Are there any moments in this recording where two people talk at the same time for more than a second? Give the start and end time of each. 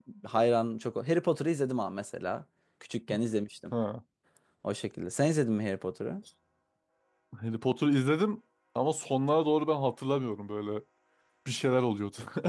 none

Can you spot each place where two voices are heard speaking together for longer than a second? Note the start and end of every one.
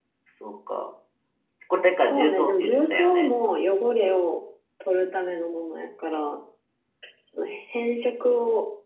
2.0-3.2

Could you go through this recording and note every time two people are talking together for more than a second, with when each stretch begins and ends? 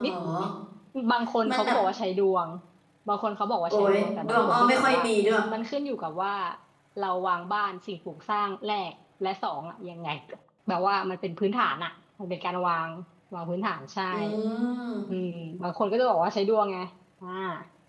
3.7-5.0

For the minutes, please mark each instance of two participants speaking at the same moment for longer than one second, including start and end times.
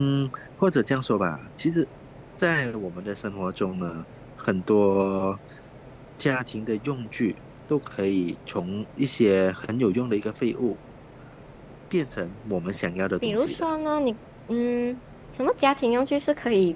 none

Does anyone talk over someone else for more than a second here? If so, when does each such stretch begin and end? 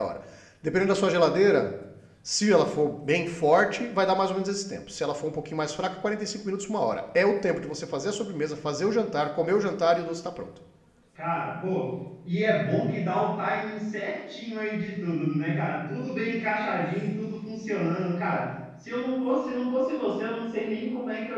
none

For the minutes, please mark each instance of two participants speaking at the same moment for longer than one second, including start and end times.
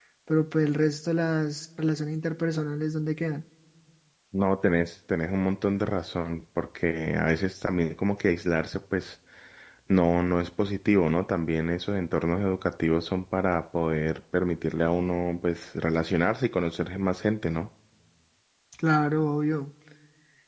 none

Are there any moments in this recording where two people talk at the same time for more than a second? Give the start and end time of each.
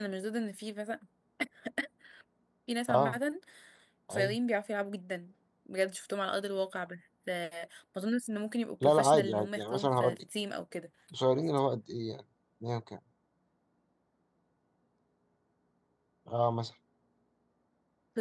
8.8-10.2

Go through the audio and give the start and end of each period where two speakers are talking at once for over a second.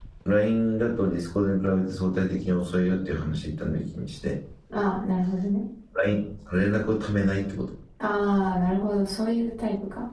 none

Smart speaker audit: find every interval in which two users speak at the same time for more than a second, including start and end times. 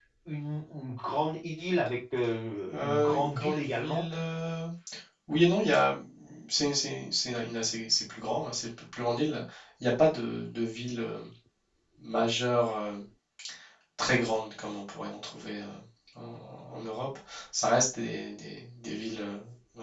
2.7-4.0

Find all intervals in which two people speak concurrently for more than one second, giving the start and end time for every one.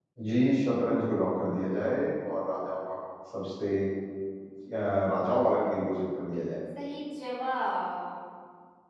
none

